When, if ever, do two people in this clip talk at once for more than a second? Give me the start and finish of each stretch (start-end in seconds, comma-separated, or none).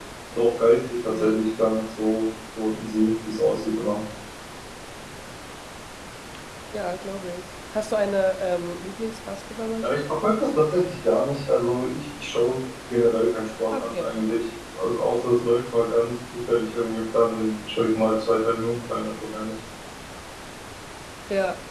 none